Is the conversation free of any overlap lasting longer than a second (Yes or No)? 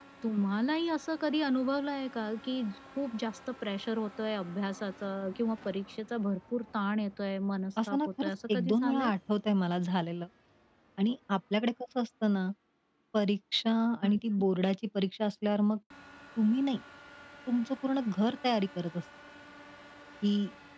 No